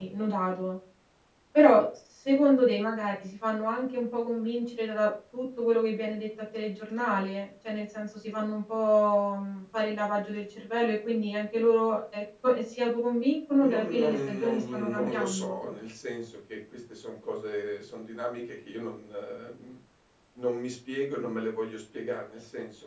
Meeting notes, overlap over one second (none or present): present